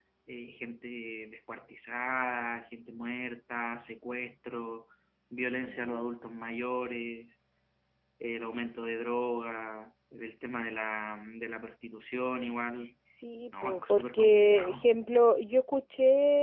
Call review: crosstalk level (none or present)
present